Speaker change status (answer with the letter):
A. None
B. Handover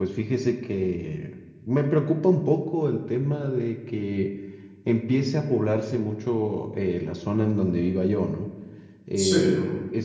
A